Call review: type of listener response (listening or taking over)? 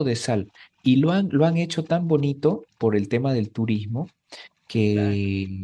listening